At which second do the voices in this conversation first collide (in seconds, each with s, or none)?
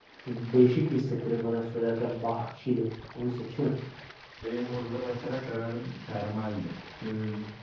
none